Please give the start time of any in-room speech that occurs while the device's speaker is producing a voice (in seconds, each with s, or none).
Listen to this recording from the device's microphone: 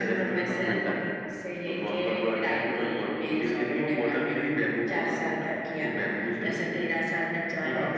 0.7 s